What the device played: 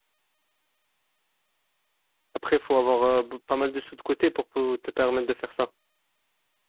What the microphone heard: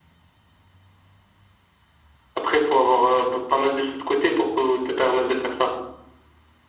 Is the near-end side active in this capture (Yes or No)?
No